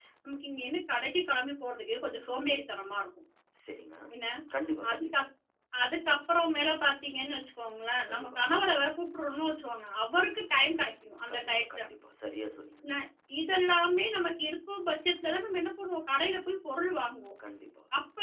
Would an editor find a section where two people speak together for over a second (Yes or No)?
No